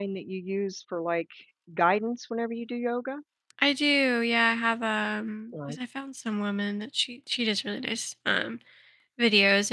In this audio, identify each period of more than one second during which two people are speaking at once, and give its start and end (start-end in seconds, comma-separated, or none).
none